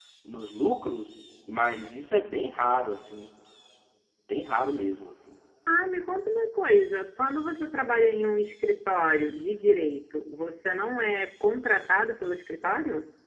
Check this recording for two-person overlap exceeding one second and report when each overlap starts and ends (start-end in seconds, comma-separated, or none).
none